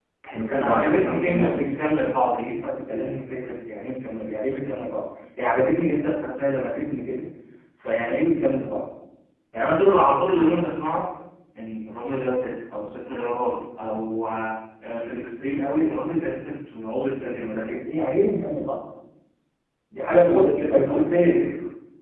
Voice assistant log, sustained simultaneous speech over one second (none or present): present